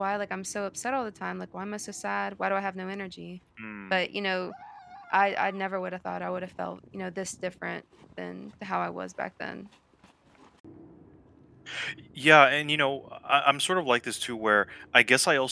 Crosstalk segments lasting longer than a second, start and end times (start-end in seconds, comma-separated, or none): none